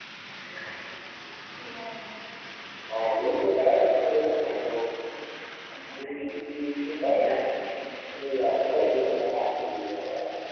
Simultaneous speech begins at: 2.9 s

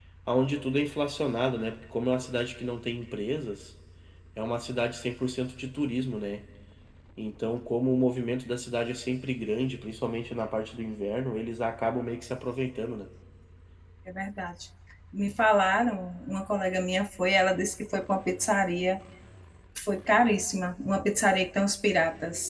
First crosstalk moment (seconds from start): none

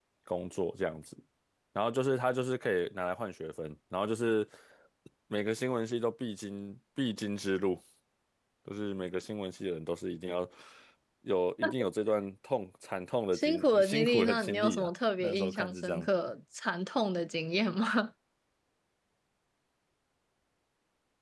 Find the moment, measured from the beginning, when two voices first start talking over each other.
13.3 s

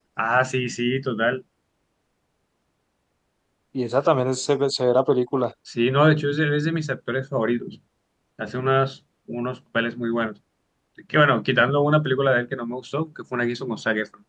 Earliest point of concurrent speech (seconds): none

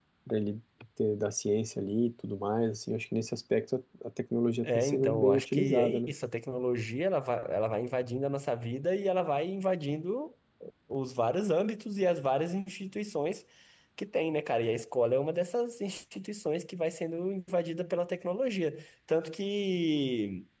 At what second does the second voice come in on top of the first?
4.6 s

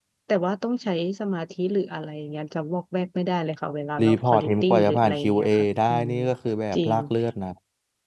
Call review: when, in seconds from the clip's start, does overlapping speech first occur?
4.0 s

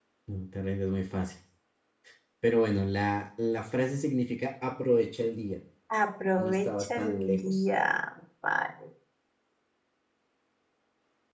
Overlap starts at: 6.4 s

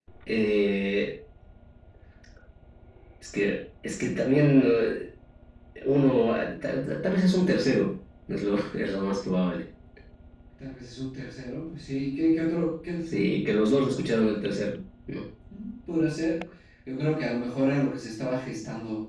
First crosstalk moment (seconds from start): none

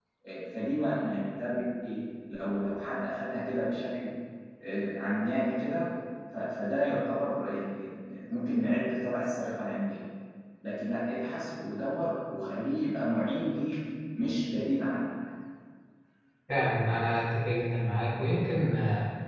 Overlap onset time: none

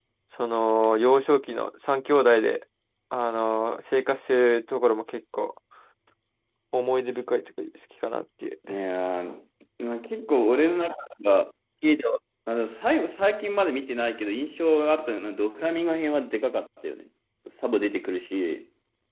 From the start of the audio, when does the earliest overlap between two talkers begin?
none

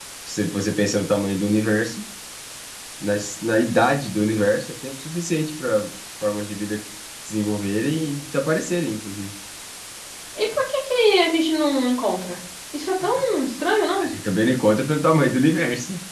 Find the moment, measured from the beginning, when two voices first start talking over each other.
none

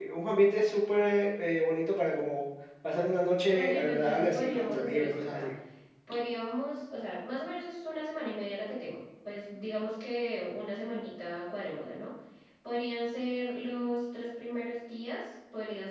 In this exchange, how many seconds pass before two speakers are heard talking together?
3.5 s

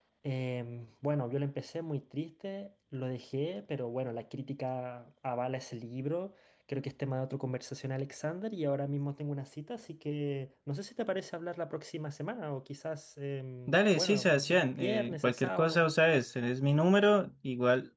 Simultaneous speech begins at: 13.7 s

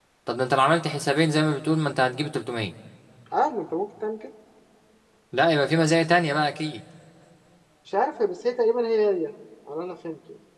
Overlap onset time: none

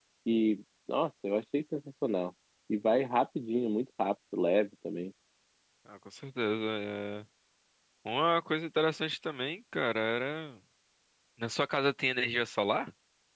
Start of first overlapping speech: none

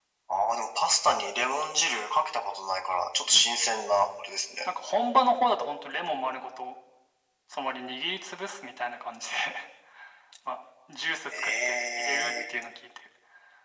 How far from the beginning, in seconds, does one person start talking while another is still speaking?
11.3 s

